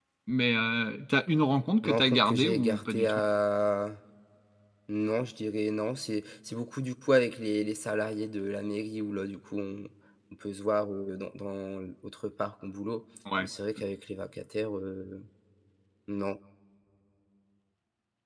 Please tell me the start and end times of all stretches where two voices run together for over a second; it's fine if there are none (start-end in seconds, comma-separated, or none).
1.8-3.2